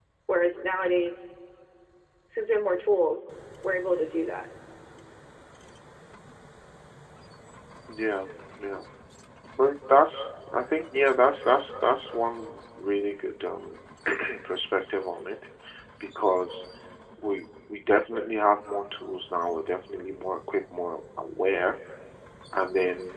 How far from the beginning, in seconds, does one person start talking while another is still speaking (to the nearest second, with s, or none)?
none